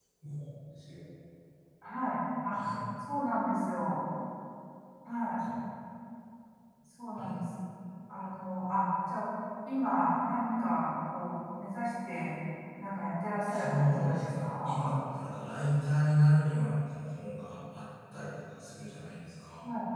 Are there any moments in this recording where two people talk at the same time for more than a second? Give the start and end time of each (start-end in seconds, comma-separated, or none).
13.5-14.7